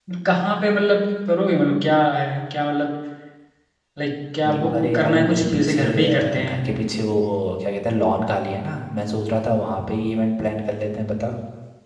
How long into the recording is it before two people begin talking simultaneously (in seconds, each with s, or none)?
4.4 s